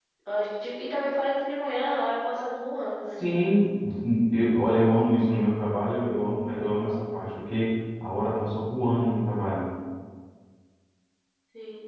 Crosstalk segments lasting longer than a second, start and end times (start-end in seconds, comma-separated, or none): none